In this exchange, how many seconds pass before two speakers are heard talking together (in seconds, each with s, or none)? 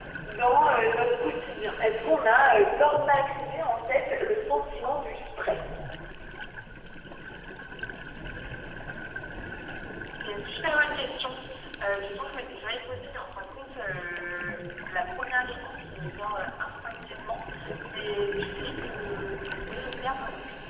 none